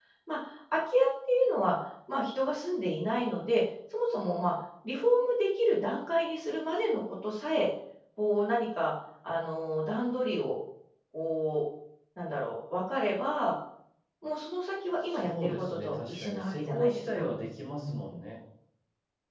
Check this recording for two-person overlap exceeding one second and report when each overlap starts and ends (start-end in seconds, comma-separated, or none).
15.1-17.3